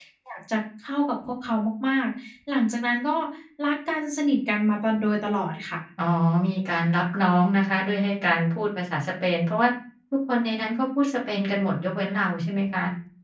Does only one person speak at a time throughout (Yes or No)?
Yes